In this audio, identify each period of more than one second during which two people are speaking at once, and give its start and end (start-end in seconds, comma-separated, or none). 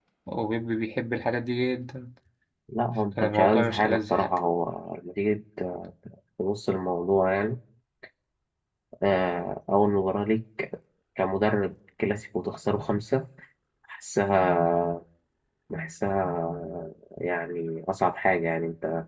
3.2-4.4